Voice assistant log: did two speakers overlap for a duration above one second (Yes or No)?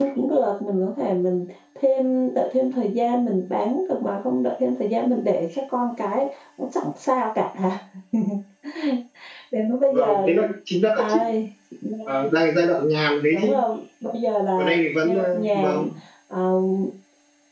Yes